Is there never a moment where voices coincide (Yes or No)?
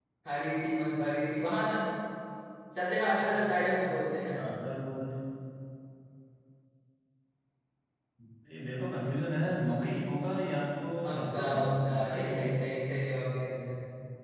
No